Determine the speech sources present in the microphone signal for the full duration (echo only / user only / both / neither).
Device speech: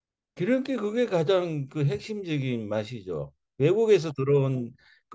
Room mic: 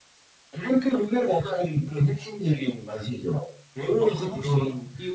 both